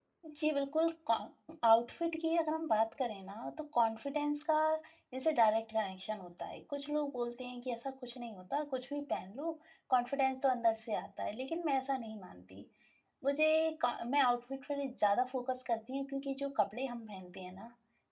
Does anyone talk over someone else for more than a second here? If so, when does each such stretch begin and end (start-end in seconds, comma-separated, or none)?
none